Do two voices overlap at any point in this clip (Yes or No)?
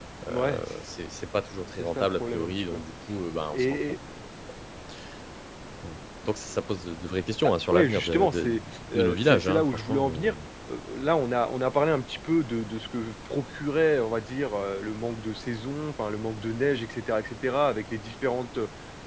Yes